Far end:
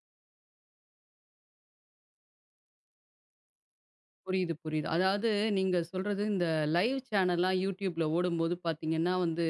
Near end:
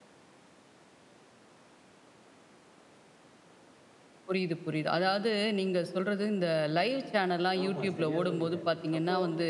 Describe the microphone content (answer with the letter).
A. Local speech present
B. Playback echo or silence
A